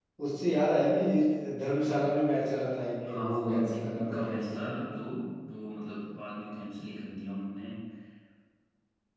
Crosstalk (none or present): present